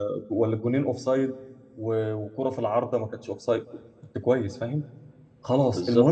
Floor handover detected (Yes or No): No